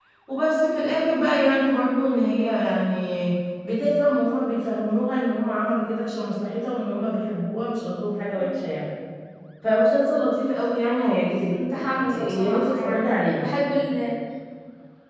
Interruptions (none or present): present